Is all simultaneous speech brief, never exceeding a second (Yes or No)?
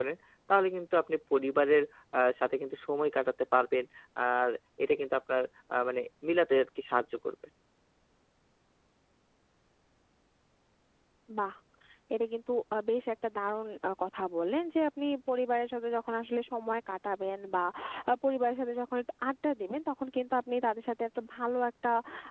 Yes